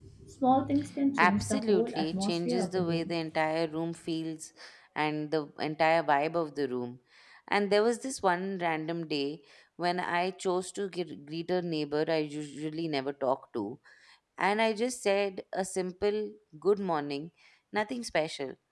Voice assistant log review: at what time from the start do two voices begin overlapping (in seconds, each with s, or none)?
1.2 s